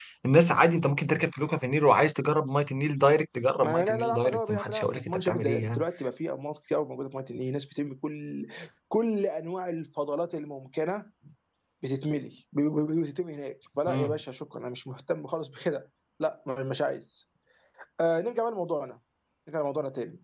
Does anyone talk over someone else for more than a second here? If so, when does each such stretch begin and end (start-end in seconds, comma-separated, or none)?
3.6-5.8